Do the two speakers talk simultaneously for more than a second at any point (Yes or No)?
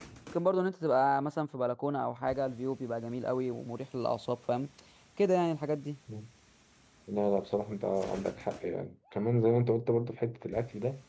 No